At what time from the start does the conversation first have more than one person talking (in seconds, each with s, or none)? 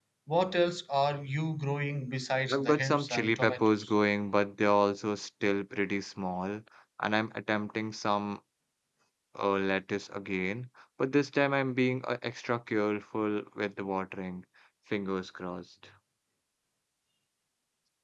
2.5 s